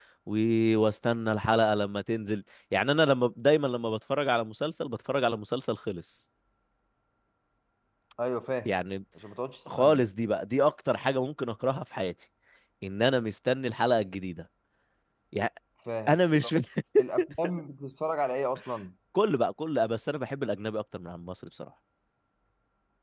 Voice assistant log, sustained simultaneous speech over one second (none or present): none